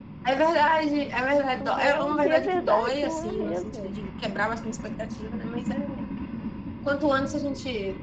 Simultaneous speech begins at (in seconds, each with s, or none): 1.3 s